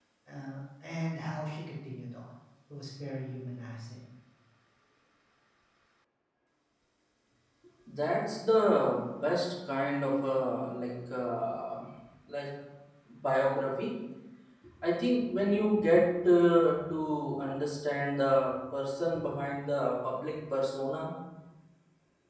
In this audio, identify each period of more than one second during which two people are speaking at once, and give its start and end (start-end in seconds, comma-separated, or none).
none